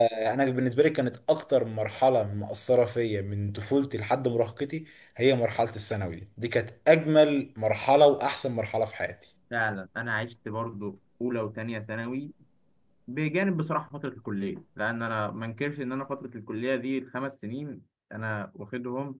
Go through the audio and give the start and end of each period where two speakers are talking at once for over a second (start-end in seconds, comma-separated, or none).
none